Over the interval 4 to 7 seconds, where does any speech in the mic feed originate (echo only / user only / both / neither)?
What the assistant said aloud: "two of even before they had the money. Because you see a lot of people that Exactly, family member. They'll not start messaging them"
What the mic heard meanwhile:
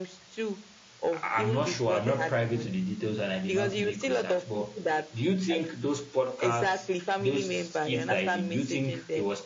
both